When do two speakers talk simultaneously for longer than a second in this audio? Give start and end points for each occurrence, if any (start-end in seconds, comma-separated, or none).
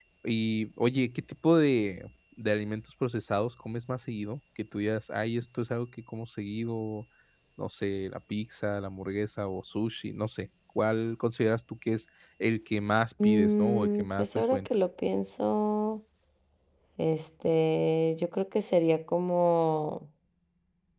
13.2-14.7